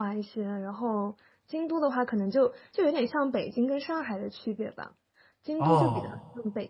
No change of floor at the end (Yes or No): Yes